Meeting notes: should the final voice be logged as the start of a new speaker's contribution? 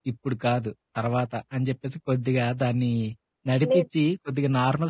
No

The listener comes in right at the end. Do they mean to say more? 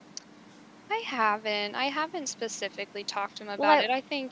No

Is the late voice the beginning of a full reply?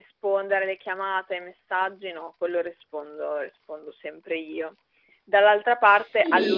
No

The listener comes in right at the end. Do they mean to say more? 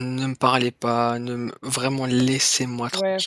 Yes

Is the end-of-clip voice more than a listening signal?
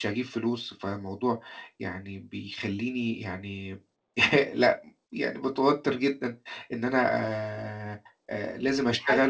No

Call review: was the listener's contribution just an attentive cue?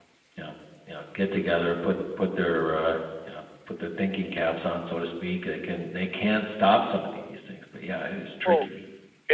No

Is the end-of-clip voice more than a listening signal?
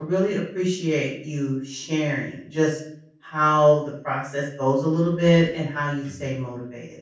No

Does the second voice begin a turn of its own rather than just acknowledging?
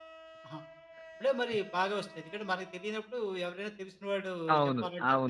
Yes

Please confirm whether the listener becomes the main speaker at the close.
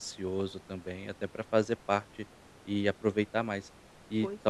No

